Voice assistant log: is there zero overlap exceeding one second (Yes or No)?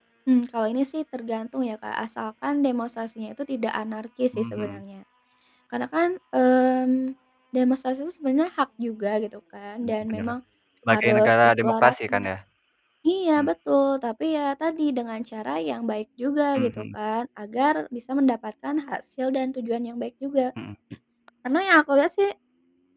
No